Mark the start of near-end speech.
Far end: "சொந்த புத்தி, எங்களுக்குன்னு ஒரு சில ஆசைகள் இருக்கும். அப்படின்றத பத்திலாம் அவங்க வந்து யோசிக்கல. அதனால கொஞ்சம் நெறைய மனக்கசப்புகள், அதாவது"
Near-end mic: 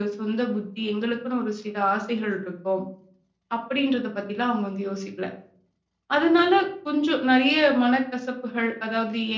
none

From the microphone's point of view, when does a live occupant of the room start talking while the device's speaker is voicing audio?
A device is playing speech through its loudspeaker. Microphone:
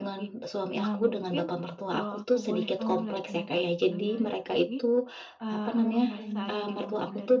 5.4 s

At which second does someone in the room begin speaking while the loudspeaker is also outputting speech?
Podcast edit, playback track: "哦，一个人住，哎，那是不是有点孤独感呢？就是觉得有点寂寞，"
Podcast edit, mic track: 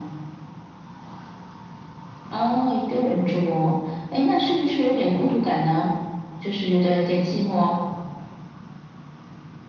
none

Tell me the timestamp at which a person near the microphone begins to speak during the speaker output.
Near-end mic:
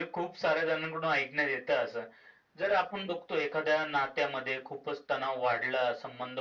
none

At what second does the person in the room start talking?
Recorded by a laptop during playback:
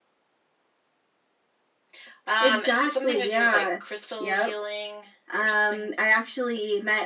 none

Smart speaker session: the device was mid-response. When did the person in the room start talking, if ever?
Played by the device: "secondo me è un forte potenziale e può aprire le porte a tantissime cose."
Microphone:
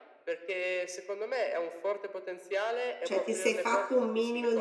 3.0 s

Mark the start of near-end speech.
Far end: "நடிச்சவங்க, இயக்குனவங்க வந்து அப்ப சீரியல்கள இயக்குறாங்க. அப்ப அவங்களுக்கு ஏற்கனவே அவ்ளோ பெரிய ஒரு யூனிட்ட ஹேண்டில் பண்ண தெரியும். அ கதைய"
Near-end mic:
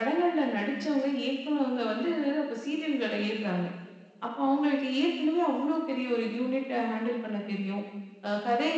none

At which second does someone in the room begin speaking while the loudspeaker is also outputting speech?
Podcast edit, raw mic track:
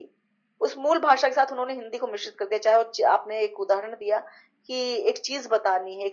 none

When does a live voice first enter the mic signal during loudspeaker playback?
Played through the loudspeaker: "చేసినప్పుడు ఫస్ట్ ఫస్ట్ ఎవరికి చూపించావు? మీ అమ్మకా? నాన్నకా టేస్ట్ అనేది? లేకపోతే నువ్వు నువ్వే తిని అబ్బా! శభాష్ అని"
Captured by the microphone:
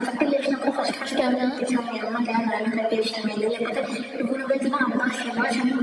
0.9 s

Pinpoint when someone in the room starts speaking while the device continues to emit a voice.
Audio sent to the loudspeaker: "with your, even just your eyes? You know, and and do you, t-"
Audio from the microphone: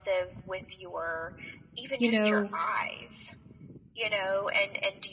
2.0 s

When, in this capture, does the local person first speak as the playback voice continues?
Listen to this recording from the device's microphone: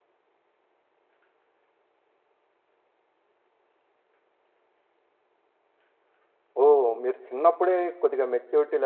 6.6 s

